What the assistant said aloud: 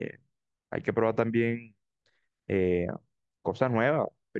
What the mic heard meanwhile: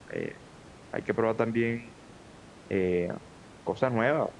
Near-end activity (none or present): none